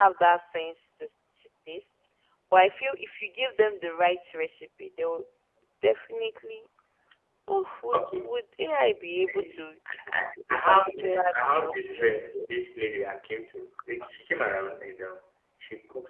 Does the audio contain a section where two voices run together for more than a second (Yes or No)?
Yes